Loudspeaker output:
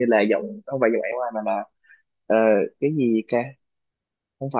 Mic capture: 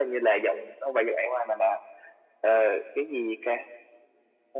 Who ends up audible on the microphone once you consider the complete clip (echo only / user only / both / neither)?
echo only